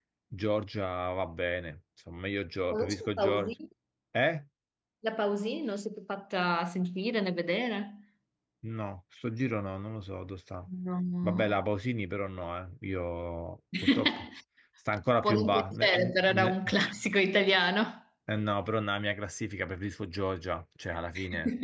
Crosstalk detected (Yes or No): Yes